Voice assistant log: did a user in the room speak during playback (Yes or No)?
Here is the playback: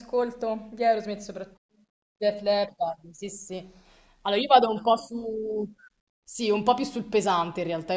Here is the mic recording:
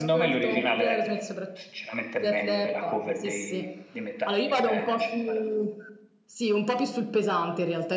Yes